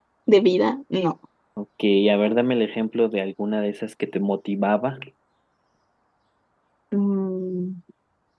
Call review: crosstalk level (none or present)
none